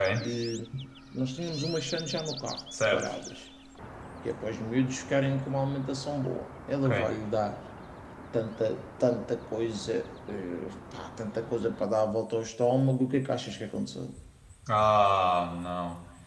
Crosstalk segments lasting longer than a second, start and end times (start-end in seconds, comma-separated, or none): none